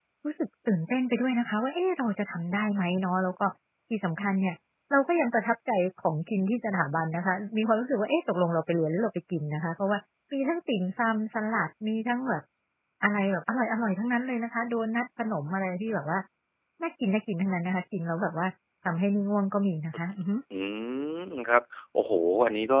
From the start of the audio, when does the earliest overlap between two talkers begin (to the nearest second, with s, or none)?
none